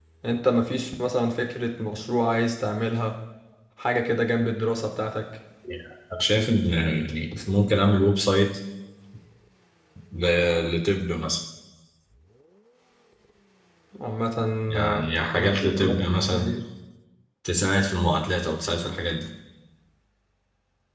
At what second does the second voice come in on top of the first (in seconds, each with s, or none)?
14.8 s